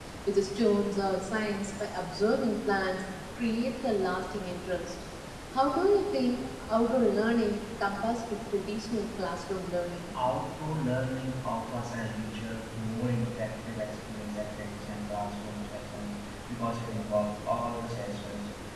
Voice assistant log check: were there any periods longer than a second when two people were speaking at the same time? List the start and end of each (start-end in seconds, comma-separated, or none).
none